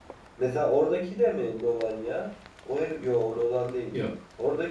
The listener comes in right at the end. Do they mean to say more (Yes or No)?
No